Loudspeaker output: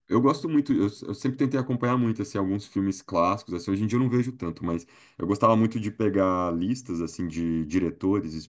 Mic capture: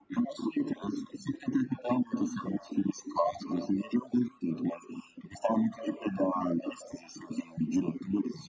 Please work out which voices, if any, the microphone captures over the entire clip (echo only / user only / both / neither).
echo only